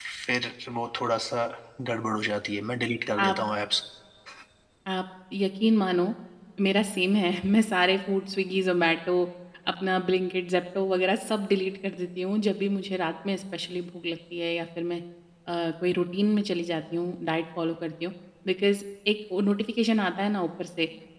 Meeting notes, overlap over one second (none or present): none